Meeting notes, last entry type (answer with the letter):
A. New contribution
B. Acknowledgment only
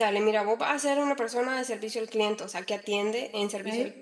B